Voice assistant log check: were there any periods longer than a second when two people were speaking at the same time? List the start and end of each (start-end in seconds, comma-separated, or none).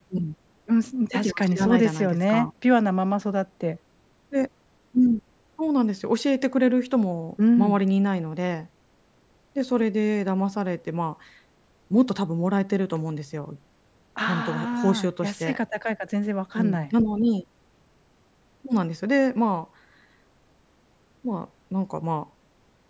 1.1-2.5, 14.3-15.6